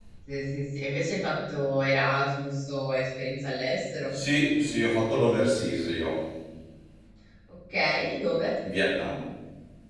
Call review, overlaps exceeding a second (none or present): none